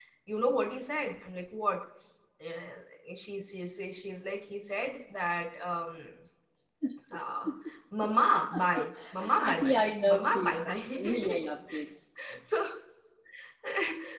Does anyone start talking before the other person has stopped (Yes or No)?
Yes